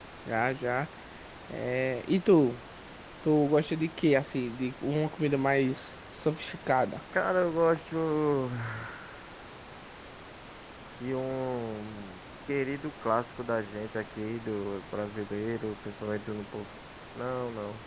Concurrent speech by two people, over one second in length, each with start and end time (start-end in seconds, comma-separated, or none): none